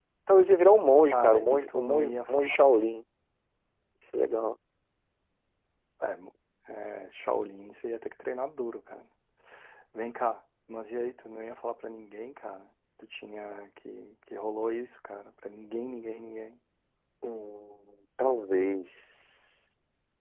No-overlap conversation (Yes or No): No